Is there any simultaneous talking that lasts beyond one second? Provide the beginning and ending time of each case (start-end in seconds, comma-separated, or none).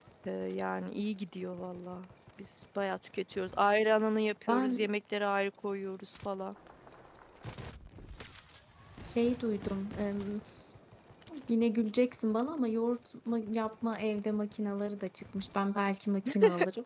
none